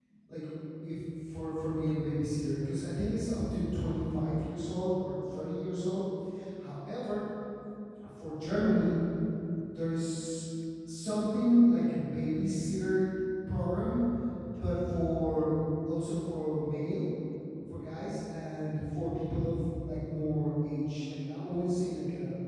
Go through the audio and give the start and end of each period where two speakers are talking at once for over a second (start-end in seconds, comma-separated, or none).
none